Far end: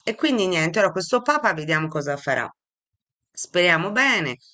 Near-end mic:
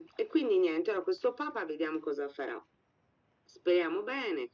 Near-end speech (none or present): none